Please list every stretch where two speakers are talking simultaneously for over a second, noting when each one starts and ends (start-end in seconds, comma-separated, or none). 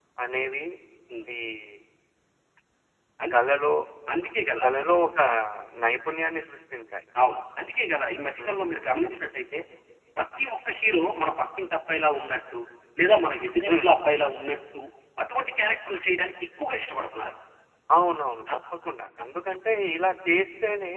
none